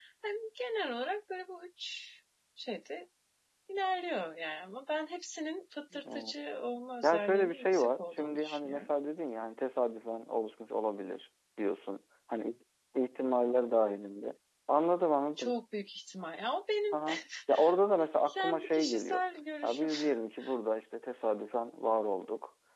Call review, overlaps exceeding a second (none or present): present